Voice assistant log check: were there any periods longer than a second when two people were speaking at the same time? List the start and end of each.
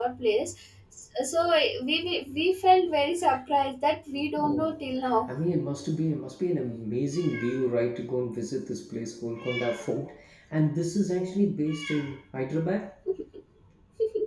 none

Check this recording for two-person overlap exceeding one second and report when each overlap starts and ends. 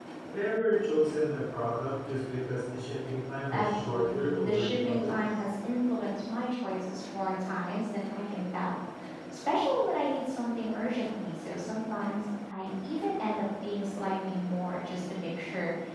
3.5-5.2

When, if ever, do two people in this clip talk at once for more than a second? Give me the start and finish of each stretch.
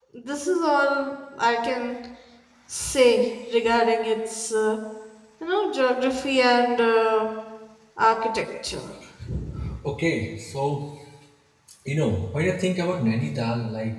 none

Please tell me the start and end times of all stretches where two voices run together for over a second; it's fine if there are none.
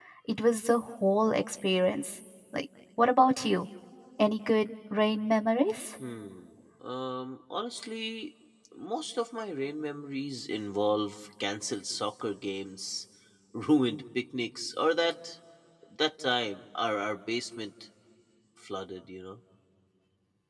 none

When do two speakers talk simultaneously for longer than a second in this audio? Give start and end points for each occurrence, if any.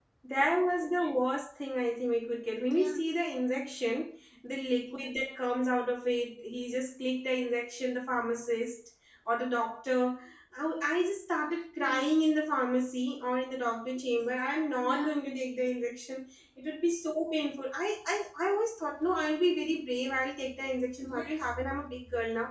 none

